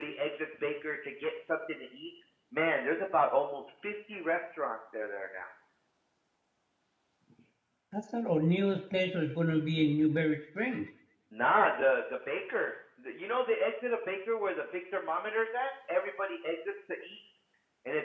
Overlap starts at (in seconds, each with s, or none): none